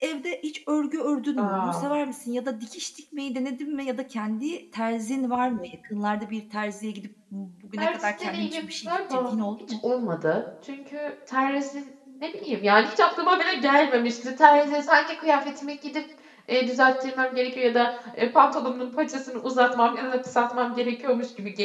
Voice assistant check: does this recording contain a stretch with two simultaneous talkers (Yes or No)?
Yes